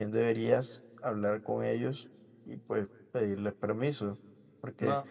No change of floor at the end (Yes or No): Yes